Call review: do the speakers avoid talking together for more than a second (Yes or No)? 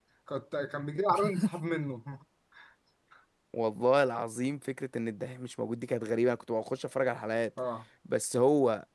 Yes